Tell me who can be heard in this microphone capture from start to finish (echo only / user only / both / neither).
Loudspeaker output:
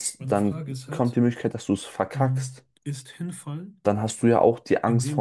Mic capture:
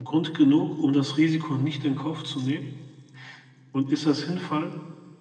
user only